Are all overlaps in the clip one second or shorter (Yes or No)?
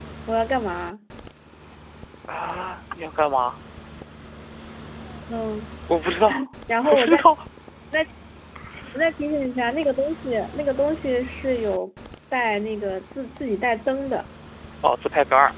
Yes